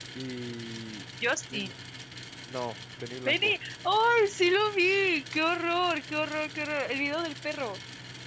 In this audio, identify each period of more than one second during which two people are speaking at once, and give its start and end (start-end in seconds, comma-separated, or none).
none